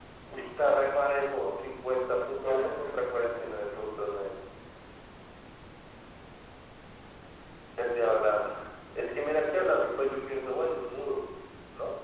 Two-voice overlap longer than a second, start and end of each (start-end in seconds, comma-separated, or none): 2.2-4.0